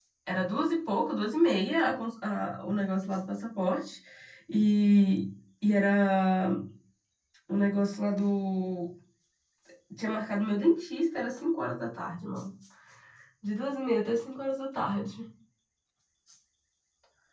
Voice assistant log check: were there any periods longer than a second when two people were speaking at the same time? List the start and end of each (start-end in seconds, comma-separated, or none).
none